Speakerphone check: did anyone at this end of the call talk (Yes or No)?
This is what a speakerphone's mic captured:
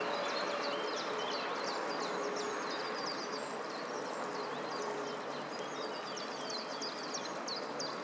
No